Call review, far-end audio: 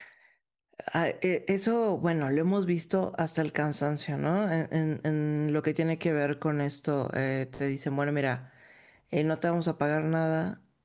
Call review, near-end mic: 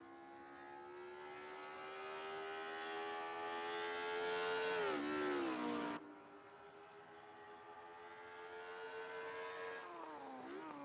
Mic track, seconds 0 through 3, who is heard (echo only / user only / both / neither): neither